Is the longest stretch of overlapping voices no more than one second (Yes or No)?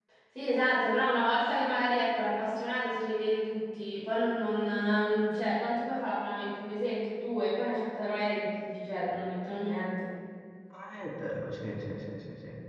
Yes